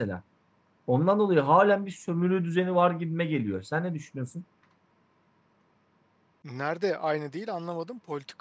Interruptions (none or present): none